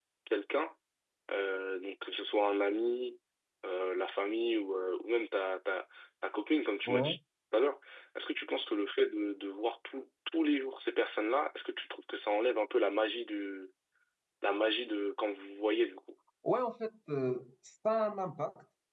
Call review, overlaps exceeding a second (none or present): none